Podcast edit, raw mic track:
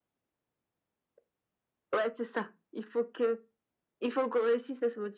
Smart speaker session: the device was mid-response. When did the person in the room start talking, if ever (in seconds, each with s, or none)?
none